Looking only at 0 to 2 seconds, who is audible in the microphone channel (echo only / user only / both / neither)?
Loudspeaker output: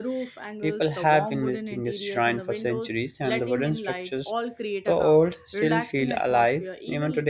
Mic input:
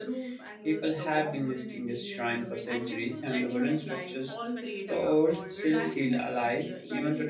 echo only